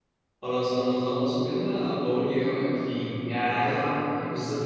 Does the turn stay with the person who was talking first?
Yes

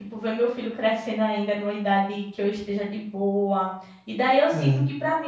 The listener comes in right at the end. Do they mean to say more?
No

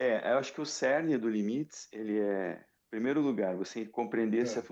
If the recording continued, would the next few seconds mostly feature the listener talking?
No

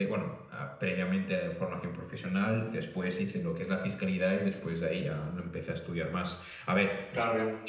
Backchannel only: Yes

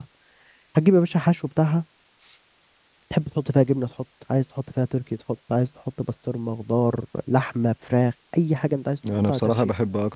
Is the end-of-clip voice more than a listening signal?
Yes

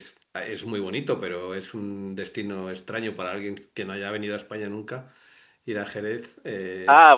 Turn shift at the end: Yes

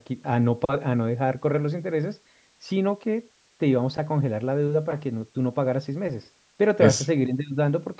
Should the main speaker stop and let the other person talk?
No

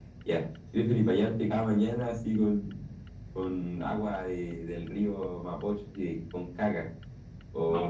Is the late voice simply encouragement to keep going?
Yes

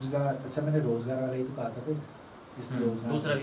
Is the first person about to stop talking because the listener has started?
Yes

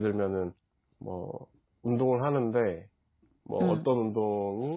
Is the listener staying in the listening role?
Yes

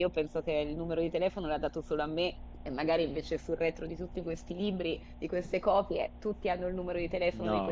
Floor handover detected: Yes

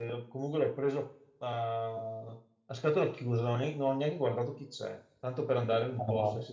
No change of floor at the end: Yes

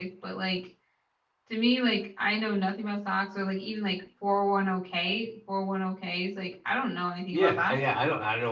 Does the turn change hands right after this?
Yes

